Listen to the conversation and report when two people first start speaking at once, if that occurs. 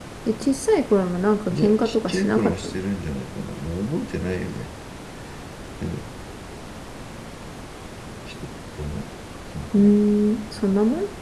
1.5 s

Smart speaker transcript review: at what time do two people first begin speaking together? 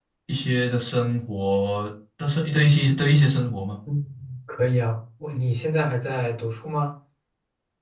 none

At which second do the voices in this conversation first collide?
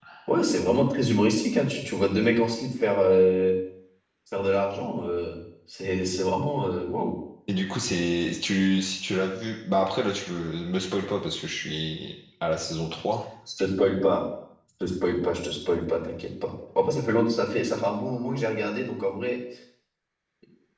none

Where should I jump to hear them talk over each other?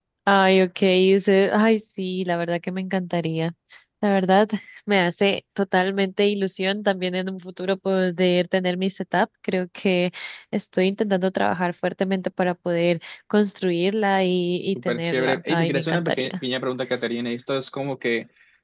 14.8 s

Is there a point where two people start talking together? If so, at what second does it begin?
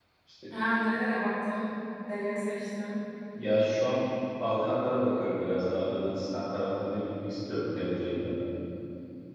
none

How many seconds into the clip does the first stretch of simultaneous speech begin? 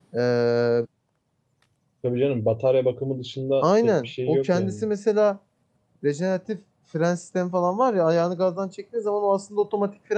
3.6 s

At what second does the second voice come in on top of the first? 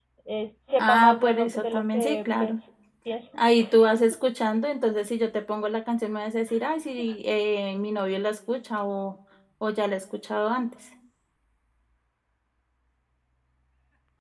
0.8 s

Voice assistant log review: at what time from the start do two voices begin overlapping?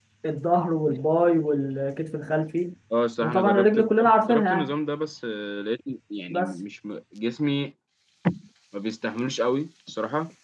3.2 s

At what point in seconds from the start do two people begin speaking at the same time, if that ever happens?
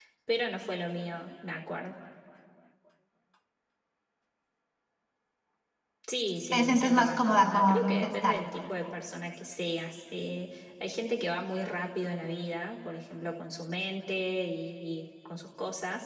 6.5 s

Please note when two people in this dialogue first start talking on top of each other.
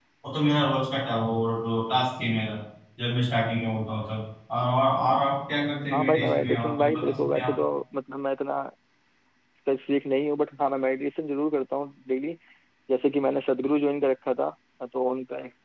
5.9 s

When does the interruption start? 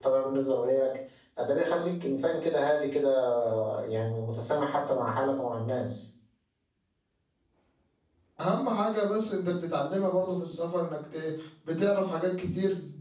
none

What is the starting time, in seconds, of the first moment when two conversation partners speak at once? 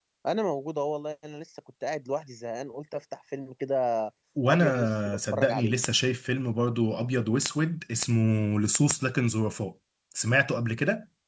4.5 s

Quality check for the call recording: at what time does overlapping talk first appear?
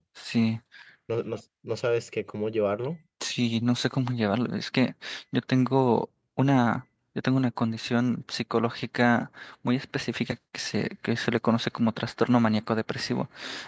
none

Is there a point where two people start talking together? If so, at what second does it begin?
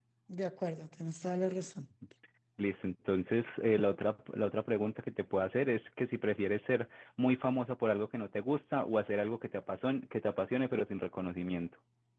none

